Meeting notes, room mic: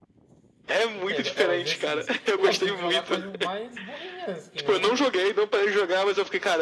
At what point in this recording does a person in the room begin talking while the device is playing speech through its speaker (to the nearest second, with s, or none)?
1 s